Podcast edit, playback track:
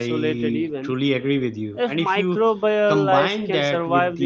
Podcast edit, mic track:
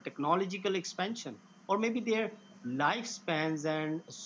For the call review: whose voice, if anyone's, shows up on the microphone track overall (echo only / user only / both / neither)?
user only